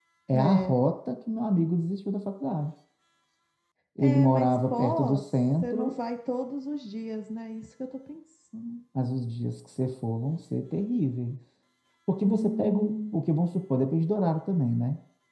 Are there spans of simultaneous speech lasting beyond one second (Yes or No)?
Yes